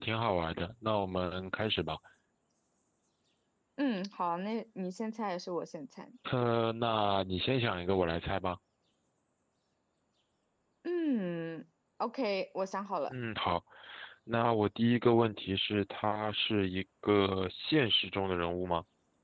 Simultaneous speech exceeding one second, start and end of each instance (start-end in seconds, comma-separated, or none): none